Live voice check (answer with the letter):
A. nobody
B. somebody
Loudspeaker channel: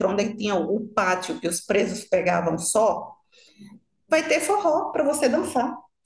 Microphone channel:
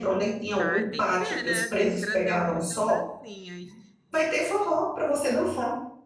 B